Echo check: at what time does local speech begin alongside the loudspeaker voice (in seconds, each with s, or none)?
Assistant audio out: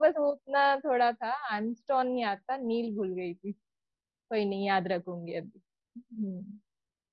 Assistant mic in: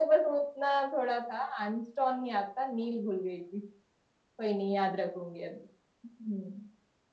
none